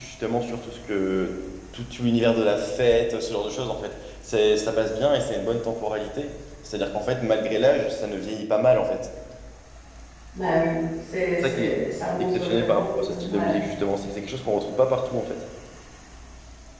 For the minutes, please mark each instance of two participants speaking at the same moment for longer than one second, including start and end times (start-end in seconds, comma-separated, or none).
12.3-13.6